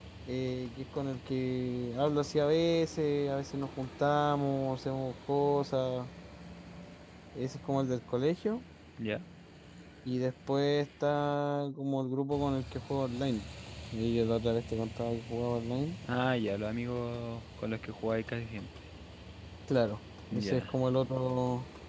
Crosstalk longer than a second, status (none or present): none